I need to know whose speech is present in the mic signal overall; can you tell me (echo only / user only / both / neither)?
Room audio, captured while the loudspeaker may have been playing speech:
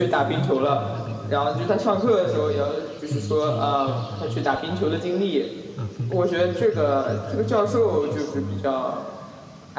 both